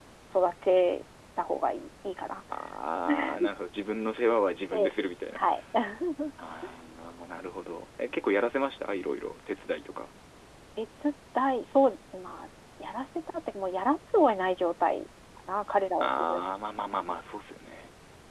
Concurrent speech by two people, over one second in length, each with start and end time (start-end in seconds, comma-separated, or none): none